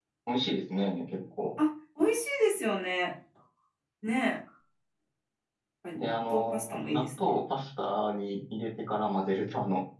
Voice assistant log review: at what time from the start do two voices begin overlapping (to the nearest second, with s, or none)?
6 s